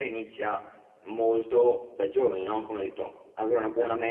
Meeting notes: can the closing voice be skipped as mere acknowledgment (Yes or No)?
Yes